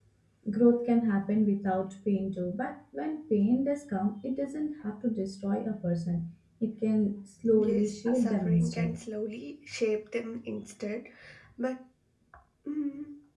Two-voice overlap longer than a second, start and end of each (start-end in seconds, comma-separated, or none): 7.5-8.9